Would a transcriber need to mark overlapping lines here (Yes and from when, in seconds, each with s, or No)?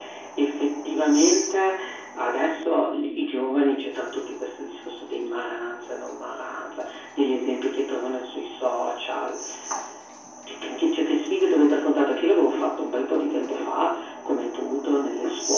No